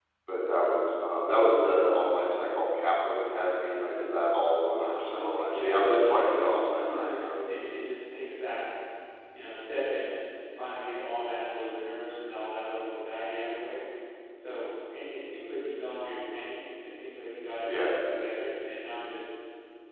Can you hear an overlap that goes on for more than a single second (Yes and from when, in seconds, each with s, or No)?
Yes, from 4.8 s